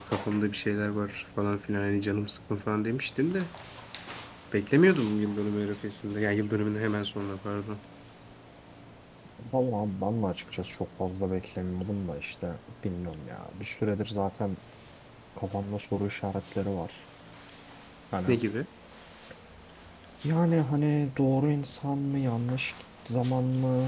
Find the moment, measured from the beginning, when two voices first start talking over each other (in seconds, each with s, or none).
none